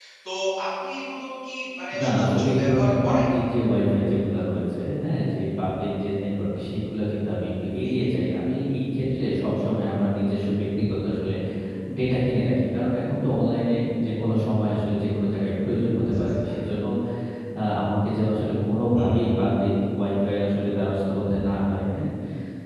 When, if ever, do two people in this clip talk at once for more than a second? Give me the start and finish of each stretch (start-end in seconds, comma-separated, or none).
2.0-3.2